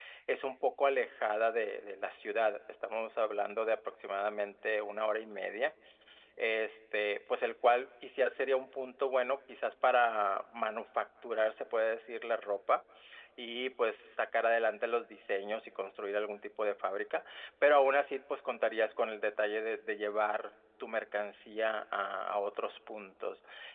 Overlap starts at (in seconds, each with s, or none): none